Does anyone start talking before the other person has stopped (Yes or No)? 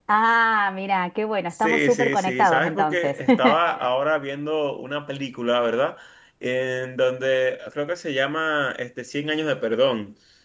Yes